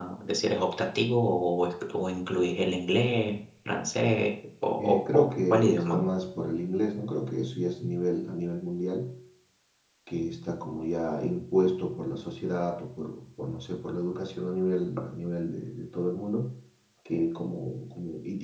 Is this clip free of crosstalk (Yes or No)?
No